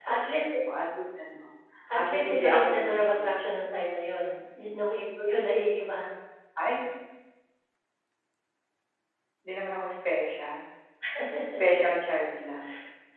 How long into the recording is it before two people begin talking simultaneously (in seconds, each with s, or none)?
2.0 s